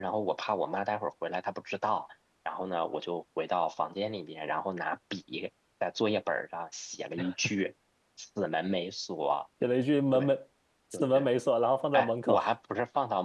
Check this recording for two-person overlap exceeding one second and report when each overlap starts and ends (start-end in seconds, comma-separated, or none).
none